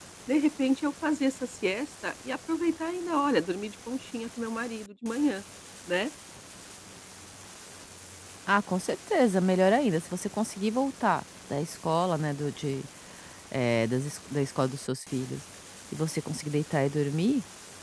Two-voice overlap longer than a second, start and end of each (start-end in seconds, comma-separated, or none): none